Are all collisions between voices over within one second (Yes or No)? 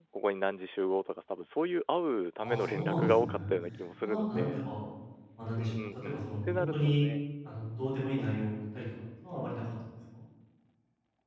No